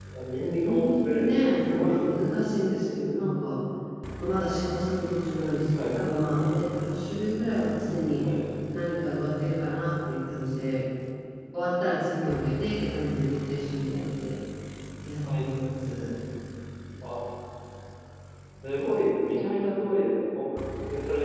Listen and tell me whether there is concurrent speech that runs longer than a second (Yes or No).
Yes